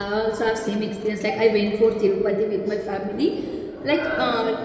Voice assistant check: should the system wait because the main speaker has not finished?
Yes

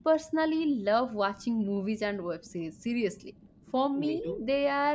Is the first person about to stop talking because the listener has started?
No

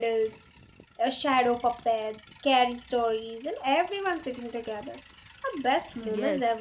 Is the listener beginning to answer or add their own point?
Yes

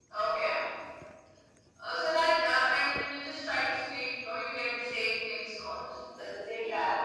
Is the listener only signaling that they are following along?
No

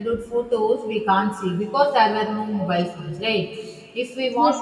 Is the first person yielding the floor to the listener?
No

